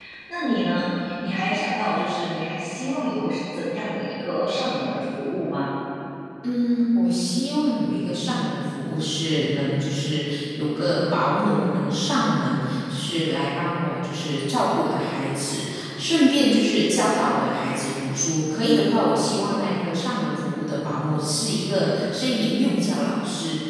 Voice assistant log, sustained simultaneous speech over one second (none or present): none